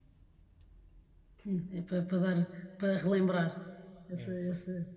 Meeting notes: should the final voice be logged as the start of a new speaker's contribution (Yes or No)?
No